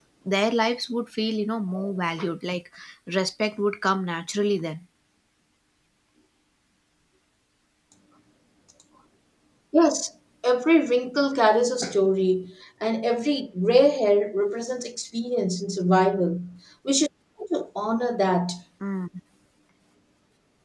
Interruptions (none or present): none